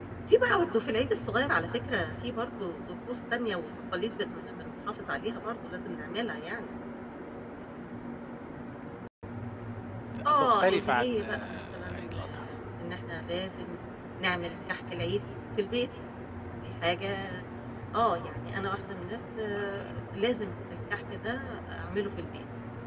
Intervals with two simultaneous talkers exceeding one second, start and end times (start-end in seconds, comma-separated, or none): 10.2-12.5